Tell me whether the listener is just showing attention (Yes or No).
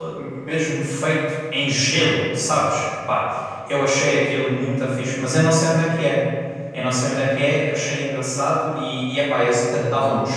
Yes